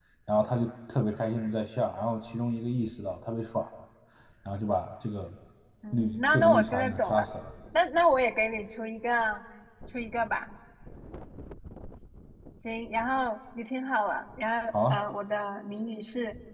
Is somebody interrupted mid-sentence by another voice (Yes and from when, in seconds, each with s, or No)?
Yes, from 5.9 s